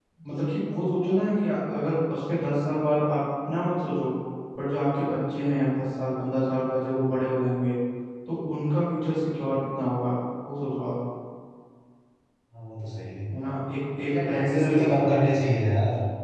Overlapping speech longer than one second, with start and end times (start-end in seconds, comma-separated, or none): 14.0-15.2